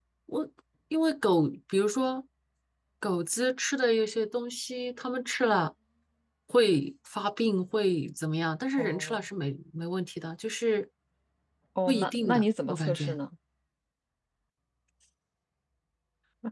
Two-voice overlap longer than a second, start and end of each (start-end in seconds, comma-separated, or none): 11.9-13.2